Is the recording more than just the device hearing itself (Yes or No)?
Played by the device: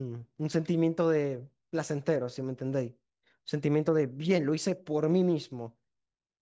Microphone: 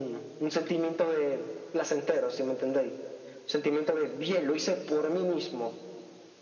No